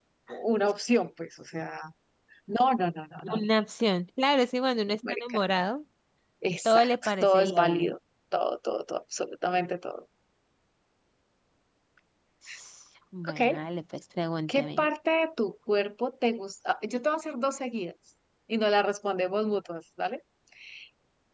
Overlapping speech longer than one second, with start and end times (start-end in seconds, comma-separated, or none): 6.7-7.9